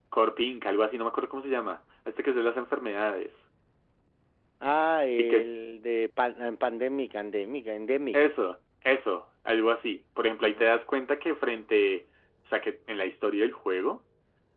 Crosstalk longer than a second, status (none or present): none